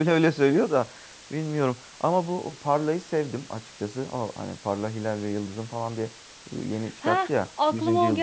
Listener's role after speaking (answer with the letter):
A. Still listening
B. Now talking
B